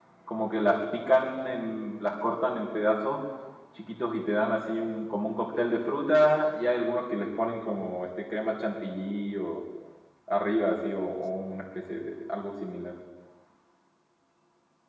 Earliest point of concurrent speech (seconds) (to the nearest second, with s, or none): none